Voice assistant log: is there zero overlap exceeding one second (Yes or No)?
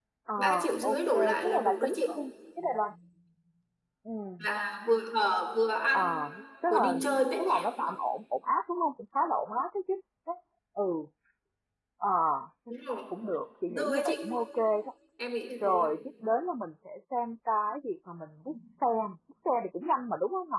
No